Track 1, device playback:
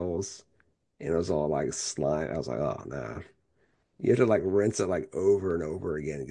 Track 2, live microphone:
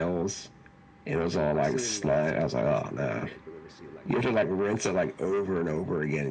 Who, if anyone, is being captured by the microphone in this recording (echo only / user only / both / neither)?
both